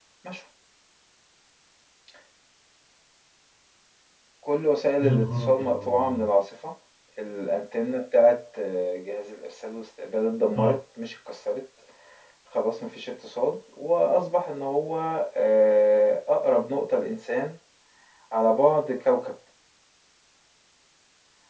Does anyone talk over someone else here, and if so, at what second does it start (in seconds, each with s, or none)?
5.0 s